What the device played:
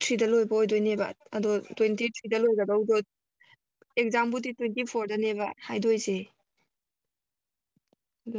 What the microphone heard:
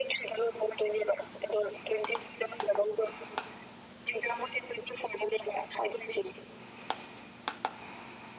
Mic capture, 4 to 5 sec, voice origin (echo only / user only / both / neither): echo only